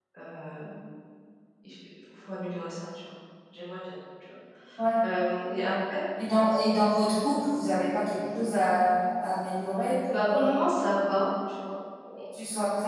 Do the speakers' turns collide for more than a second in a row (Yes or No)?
No